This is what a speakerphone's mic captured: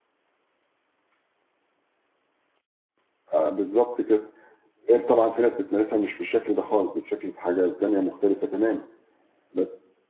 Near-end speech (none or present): present